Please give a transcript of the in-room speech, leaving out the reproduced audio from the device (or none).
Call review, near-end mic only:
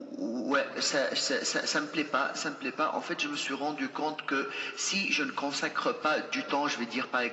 none